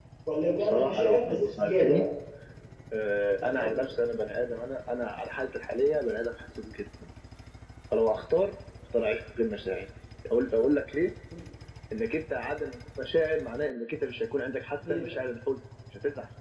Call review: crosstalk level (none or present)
present